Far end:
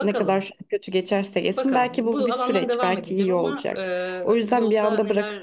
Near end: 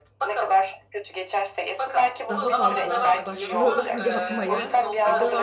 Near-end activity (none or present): present